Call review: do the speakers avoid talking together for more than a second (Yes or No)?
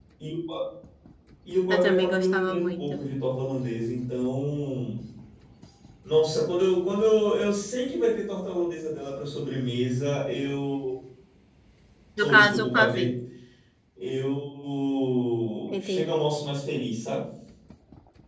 No